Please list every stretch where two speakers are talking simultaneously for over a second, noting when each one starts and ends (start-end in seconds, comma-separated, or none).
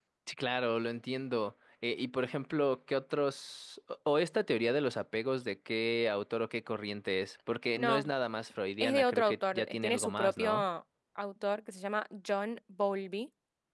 8.8-10.6